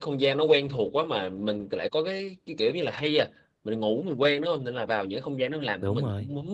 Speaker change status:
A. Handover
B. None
B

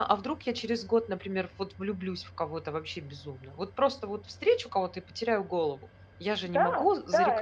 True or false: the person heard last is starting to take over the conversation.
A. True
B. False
A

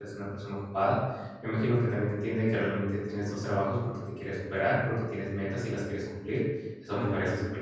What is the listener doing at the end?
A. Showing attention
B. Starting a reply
A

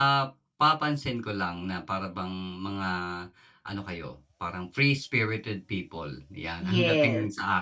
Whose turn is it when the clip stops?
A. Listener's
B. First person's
B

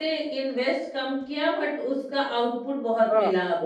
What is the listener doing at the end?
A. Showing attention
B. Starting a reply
B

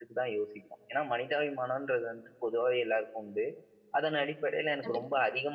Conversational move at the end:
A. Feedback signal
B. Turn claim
A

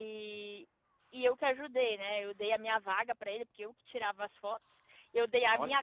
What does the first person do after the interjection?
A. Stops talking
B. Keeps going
B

